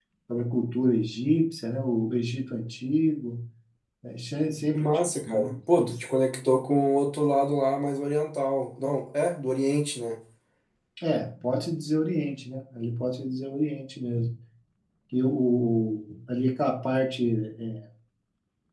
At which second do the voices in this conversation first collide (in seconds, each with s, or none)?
4.7 s